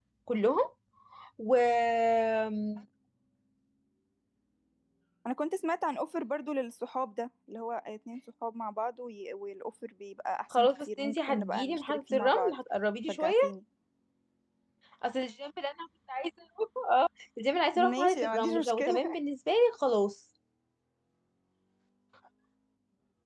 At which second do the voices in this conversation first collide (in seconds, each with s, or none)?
10.5 s